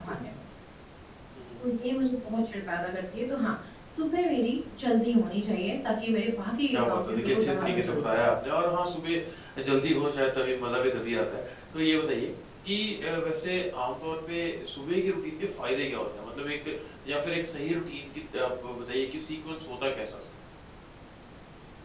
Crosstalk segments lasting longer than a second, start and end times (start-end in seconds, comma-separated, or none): 6.7-8.3